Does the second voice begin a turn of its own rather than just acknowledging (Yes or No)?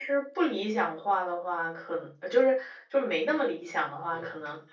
No